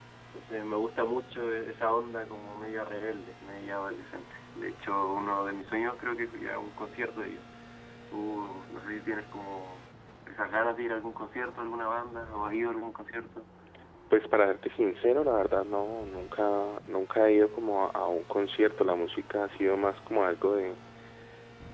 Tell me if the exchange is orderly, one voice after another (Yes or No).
Yes